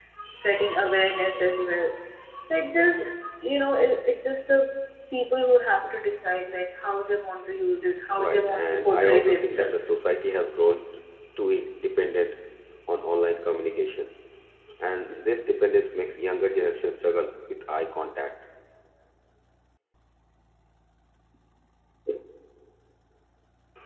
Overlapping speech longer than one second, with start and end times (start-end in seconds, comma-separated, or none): 8.2-9.9